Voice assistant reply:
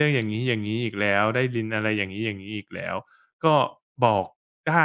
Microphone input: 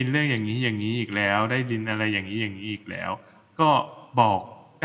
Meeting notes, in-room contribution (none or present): none